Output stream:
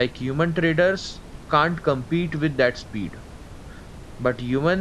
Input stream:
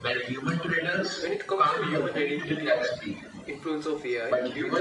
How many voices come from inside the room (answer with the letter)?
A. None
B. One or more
B